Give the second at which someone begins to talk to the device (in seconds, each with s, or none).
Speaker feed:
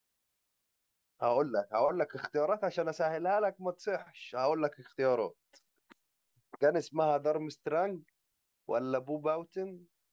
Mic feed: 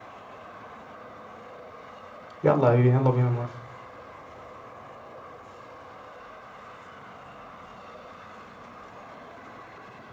2.4 s